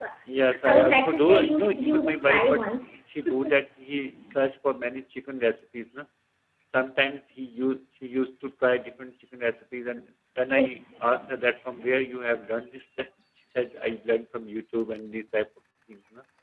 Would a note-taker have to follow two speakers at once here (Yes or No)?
Yes